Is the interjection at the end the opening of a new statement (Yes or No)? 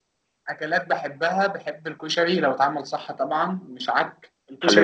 Yes